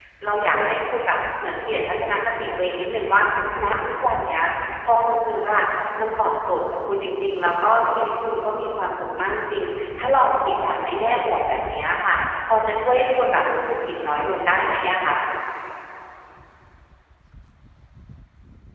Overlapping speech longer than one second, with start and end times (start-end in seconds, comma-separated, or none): none